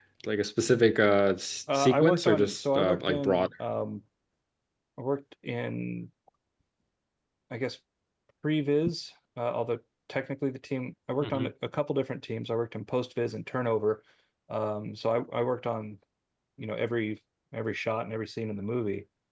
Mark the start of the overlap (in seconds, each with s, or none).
1.7 s